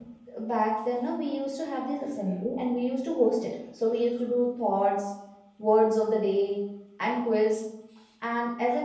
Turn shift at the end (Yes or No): No